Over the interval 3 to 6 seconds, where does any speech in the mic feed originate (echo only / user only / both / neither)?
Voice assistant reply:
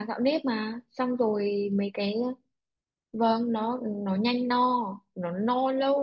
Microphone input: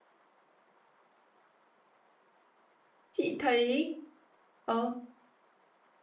user only